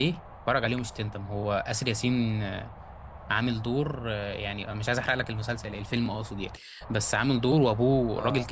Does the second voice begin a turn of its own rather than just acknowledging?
No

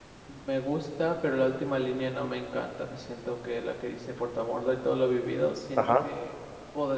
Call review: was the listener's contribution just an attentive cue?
Yes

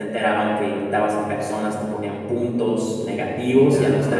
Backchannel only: Yes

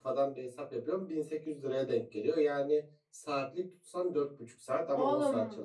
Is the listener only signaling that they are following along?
No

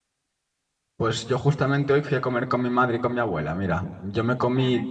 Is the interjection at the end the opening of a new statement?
No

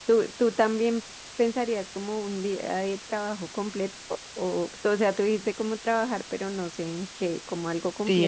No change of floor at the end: No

